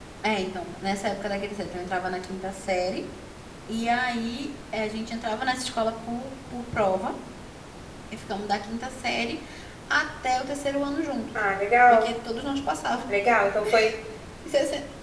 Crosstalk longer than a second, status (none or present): none